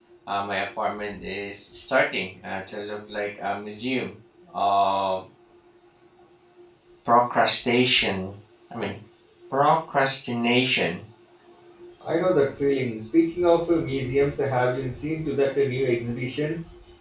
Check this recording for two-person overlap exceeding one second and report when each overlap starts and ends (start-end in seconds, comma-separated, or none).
none